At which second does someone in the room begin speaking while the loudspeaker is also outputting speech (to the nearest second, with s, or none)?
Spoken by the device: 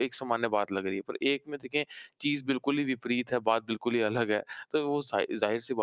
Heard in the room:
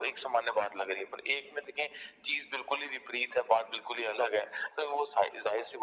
none